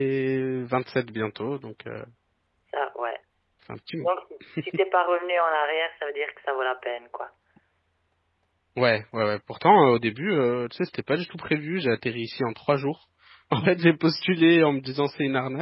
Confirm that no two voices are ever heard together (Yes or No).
Yes